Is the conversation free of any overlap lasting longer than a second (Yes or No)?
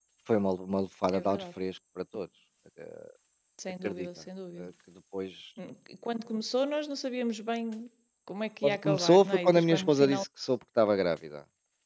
No